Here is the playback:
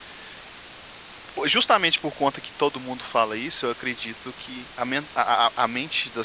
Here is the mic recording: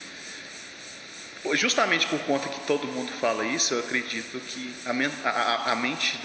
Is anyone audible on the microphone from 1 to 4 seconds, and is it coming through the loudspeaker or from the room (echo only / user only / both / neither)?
echo only